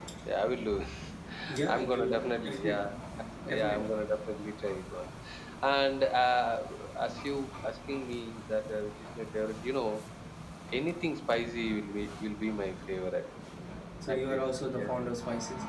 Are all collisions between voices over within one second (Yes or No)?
No